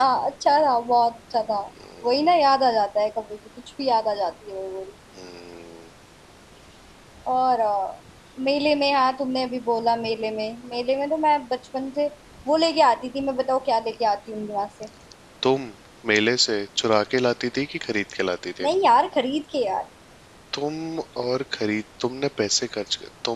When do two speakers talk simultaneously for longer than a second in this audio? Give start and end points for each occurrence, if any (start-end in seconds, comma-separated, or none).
none